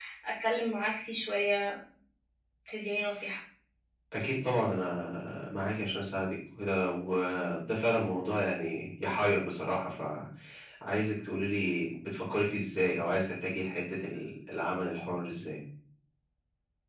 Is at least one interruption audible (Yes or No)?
No